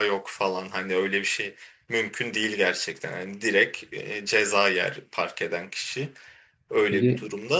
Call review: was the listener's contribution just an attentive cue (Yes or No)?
No